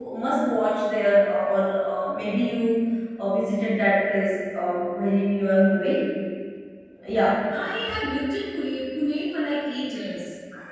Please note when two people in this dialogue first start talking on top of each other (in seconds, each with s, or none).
none